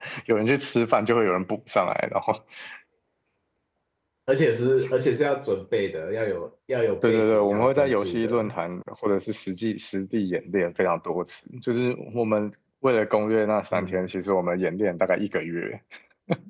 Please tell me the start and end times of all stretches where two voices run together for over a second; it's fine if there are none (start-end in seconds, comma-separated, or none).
7.0-8.5